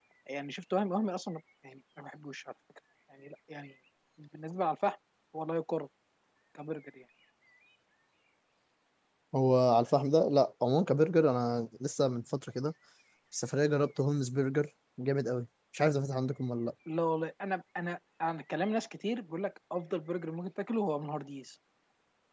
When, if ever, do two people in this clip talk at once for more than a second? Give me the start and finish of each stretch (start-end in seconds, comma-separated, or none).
none